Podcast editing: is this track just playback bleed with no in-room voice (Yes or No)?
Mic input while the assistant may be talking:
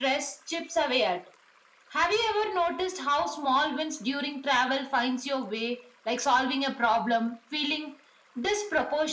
Yes